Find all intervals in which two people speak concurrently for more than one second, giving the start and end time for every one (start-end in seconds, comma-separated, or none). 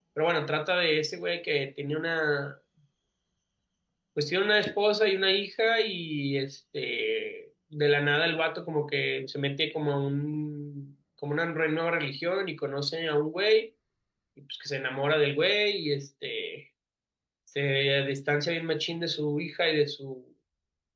none